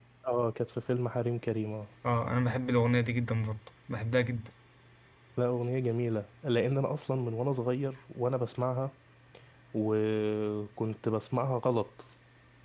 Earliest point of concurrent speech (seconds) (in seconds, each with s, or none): none